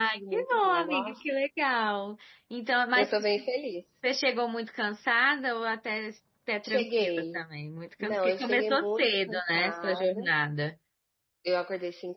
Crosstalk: present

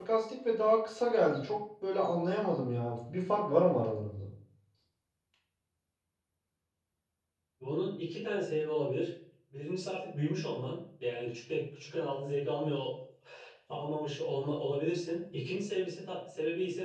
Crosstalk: none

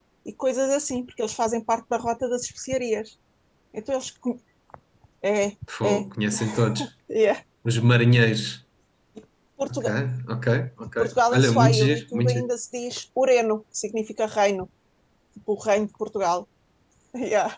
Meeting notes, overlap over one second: present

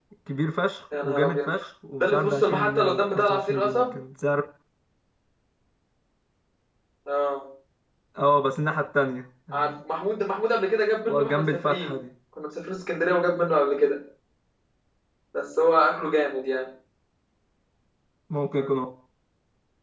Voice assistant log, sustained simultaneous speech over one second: present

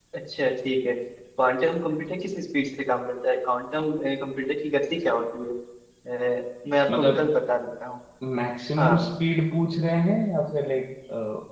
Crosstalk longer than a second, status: none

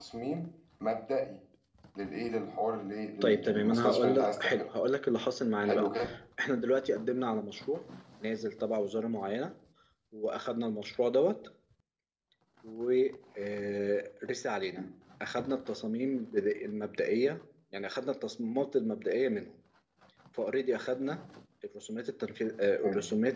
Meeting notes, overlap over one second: present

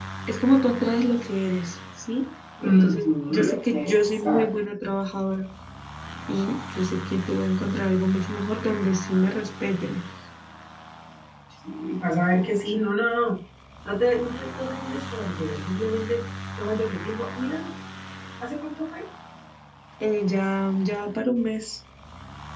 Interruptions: present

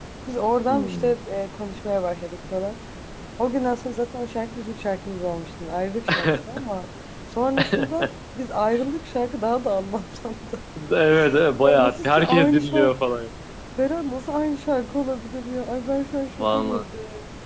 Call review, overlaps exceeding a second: present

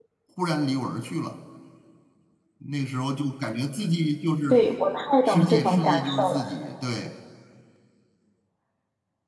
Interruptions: present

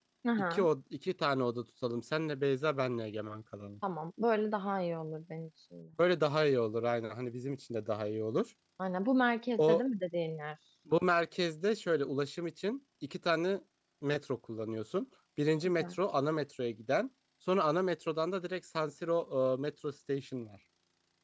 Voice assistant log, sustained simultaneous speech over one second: none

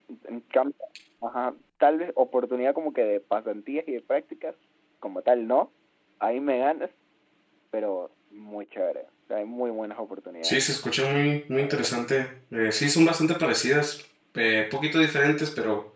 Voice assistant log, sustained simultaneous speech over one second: none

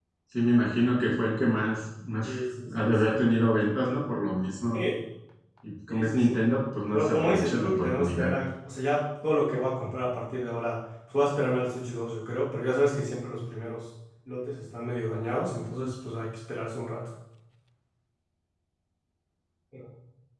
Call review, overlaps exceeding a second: present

